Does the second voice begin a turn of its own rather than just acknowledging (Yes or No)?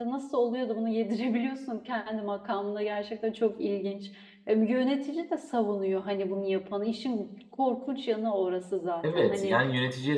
Yes